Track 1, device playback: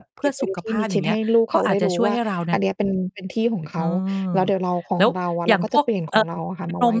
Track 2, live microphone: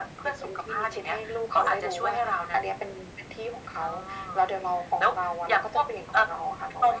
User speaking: No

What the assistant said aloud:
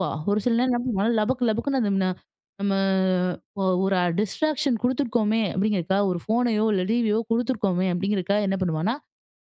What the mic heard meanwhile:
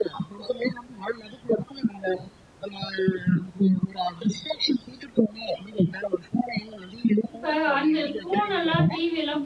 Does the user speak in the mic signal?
Yes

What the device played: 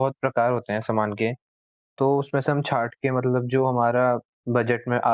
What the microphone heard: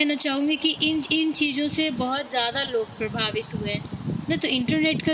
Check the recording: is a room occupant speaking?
Yes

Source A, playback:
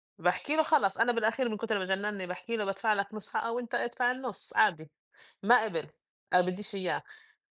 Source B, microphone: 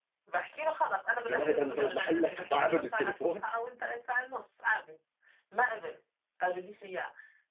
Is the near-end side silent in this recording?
No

